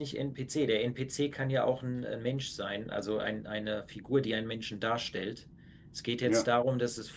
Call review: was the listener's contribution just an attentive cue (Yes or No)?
Yes